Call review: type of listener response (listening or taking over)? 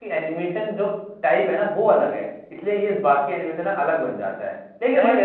listening